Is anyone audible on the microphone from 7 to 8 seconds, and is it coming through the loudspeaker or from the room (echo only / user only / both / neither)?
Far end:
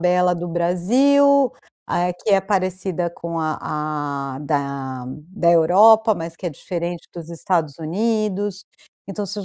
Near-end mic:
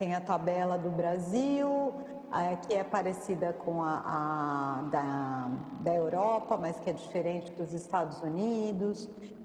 echo only